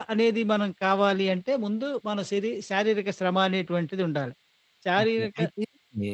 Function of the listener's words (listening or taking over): taking over